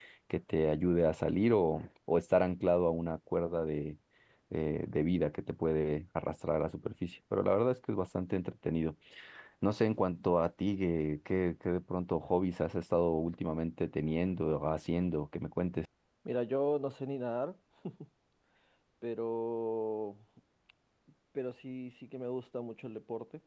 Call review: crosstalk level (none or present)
none